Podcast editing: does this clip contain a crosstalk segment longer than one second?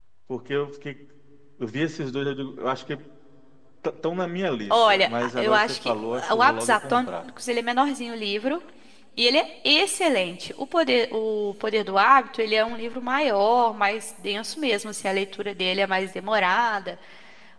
Yes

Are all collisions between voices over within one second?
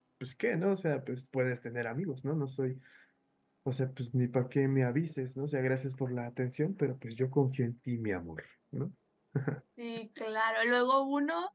Yes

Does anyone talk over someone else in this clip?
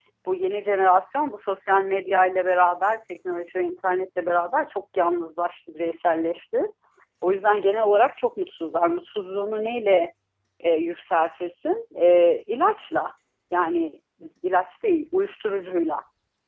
No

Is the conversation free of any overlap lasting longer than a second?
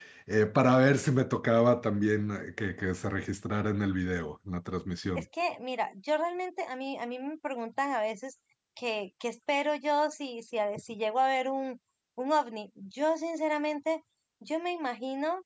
Yes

